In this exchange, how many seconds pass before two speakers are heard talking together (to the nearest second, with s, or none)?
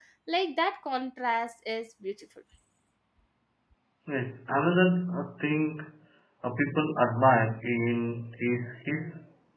none